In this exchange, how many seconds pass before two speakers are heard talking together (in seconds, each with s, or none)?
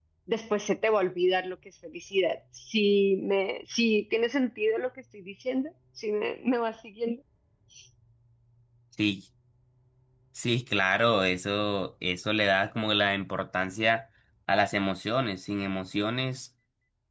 none